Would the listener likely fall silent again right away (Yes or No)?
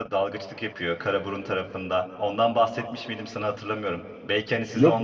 Yes